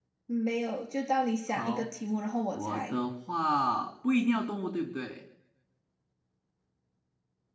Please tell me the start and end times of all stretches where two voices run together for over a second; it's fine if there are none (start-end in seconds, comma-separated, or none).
none